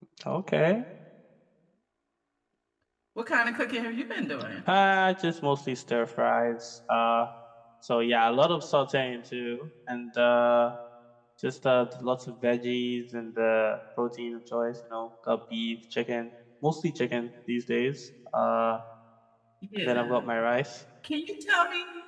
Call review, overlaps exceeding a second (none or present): none